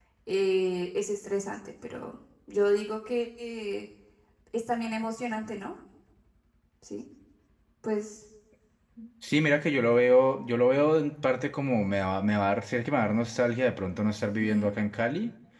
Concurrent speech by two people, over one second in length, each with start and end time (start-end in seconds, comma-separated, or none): none